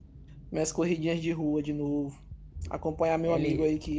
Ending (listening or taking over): listening